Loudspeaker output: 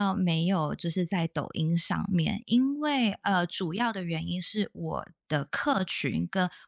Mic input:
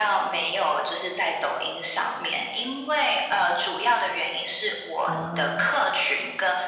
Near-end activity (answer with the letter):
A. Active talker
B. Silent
A